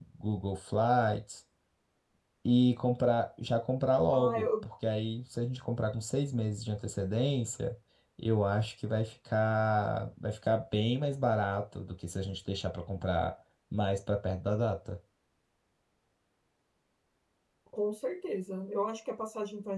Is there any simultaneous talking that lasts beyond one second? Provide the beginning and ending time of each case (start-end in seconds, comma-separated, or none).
none